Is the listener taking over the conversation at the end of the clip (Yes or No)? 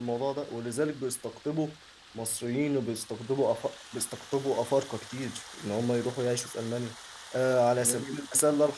No